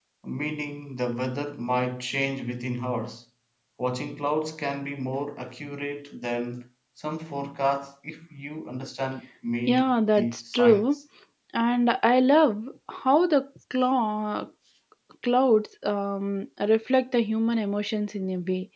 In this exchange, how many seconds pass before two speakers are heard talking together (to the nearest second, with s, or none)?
10 s